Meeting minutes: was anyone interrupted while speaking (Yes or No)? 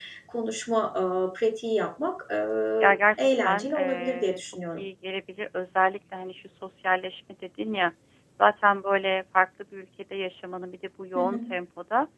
Yes